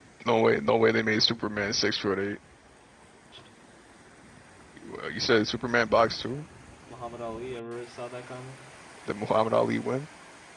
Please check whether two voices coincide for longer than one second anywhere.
No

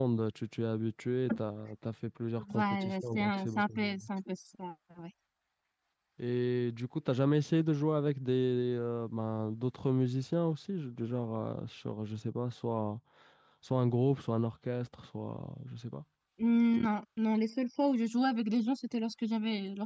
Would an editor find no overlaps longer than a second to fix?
No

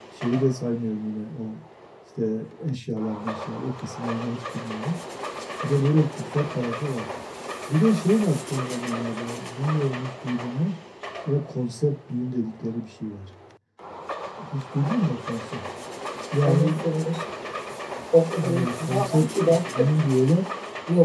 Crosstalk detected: Yes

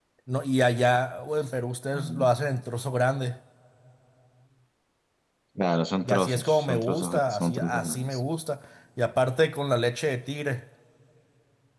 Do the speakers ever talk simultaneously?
Yes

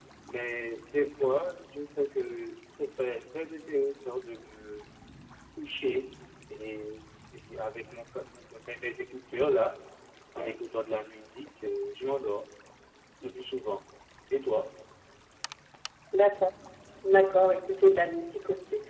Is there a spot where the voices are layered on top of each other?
No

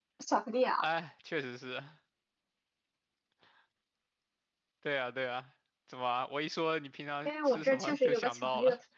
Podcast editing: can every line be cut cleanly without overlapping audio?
No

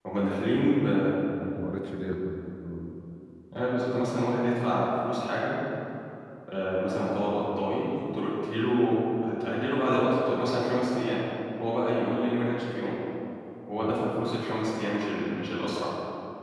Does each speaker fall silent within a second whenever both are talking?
Yes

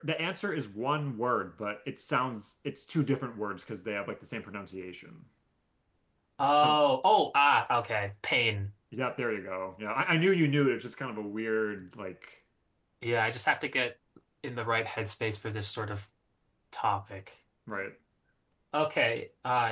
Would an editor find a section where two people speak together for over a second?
No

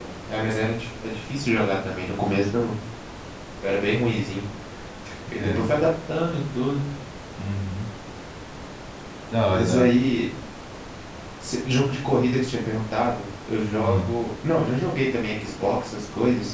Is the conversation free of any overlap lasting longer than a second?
Yes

